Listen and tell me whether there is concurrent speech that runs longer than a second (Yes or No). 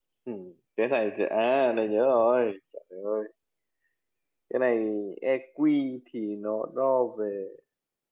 No